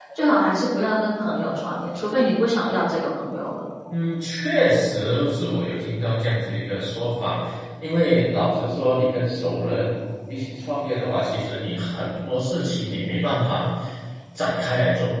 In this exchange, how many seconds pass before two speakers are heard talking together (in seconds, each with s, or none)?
none